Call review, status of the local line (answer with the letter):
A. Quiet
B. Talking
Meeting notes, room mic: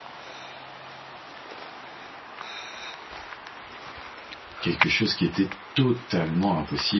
B